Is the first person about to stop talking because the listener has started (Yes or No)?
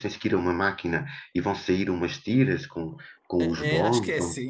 Yes